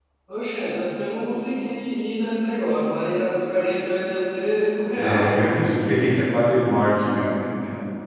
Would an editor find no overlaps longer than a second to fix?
Yes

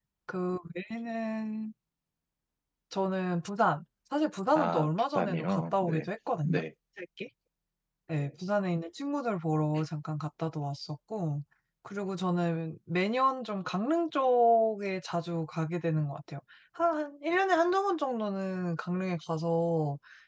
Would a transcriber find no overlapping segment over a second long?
No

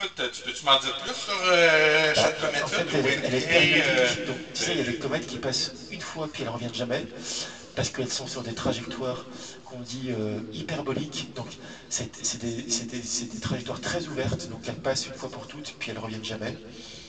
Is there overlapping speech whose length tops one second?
Yes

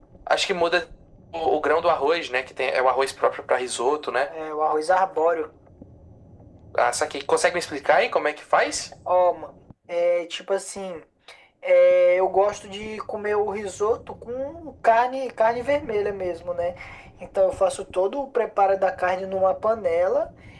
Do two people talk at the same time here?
No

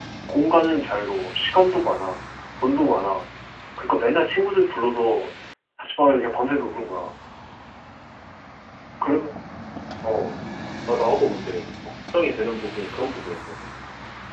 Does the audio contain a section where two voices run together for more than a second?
No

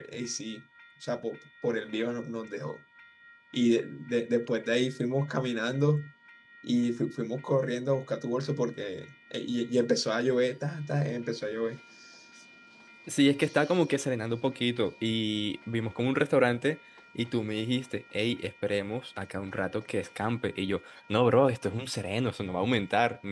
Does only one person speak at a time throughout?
Yes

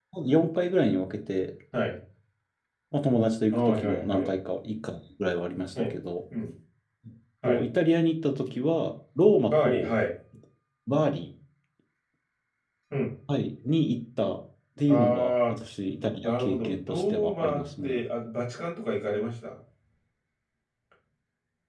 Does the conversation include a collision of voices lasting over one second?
Yes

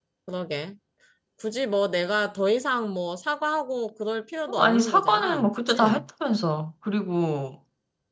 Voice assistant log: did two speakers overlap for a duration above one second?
Yes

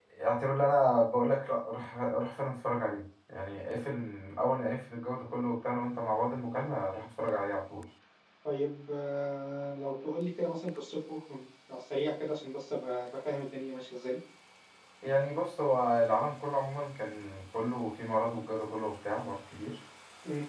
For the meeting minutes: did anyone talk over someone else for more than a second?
No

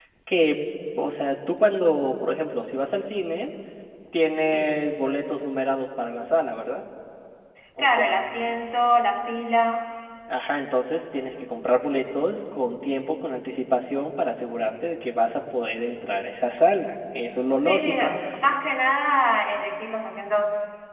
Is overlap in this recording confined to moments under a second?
Yes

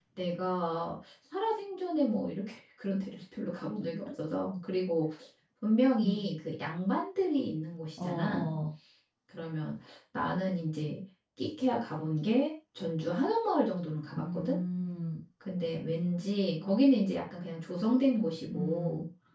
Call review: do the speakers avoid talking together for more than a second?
Yes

